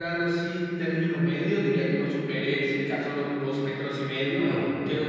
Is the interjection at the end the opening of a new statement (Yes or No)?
No